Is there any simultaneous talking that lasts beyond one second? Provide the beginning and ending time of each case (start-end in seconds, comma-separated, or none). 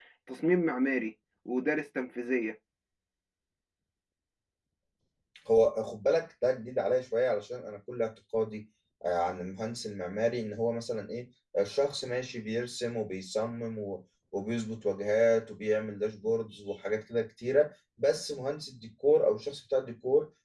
none